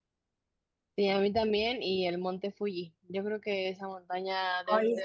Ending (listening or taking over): taking over